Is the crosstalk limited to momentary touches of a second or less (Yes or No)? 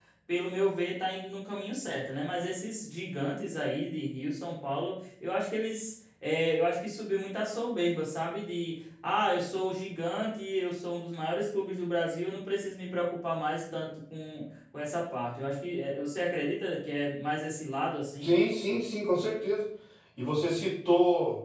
Yes